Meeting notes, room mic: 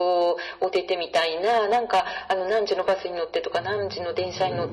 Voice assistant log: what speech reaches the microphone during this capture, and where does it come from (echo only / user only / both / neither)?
both